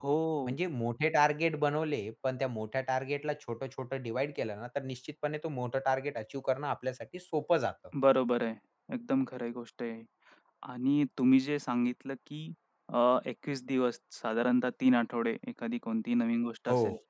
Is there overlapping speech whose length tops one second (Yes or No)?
No